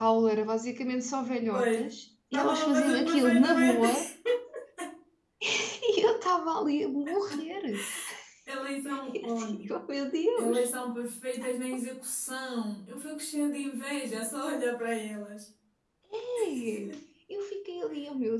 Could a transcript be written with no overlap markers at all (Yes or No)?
No